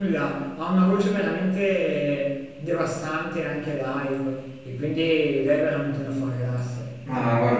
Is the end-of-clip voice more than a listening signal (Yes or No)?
Yes